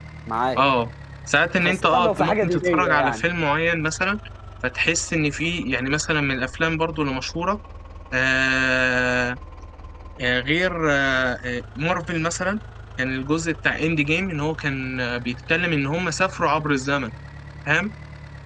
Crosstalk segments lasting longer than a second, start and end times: 1.6-3.2

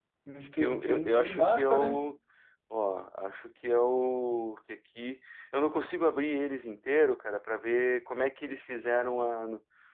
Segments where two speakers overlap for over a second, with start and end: 0.6-1.9

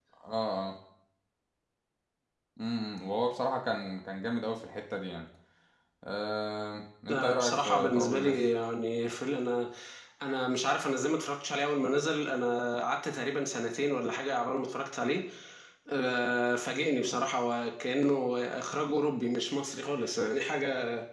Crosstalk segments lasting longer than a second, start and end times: 7.1-8.4

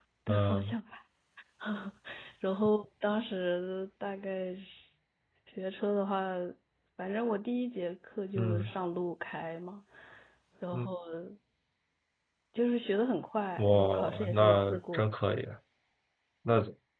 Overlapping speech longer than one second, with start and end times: 13.6-15.0

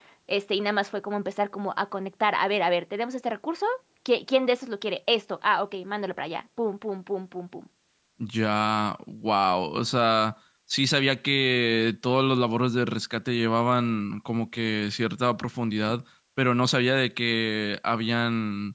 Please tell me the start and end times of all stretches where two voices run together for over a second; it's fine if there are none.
none

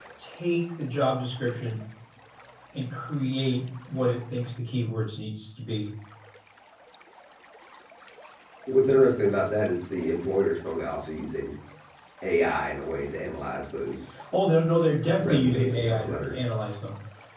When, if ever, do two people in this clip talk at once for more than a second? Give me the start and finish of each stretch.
15.2-16.5

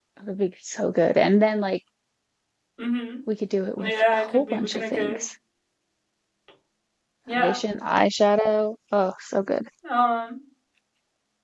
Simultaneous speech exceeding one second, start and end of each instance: 3.9-5.2

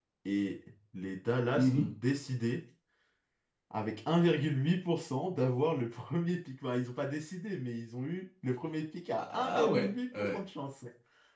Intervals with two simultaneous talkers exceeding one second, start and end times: 9.2-10.4

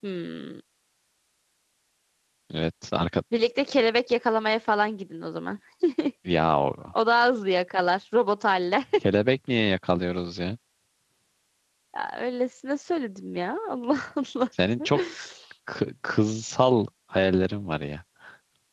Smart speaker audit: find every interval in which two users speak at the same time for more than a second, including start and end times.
none

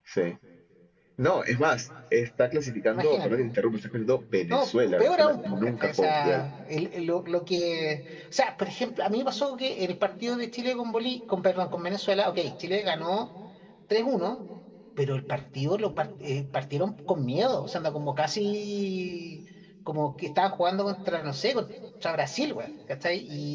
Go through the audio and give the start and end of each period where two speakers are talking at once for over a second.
4.5-6.4

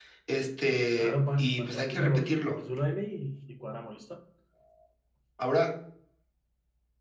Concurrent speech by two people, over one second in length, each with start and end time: 1.0-2.4

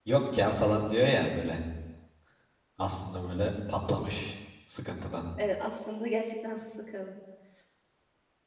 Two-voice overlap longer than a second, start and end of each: none

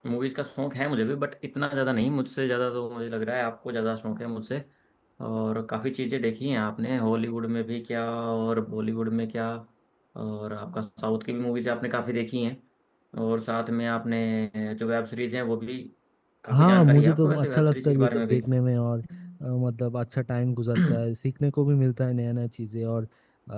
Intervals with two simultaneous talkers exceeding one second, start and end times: 16.5-18.4

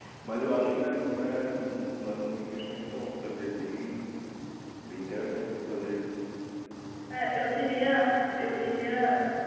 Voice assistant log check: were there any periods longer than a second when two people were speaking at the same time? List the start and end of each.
none

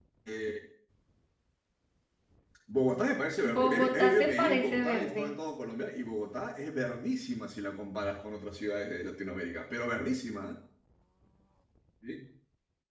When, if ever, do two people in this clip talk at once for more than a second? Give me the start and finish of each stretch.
3.5-5.3

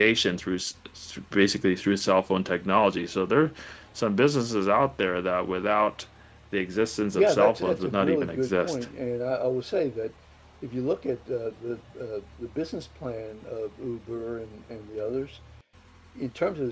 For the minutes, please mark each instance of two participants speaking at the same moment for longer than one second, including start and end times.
7.1-8.8

